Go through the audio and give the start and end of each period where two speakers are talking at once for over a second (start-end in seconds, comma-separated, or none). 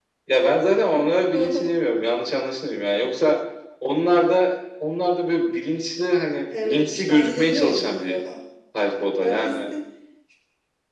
6.6-8.2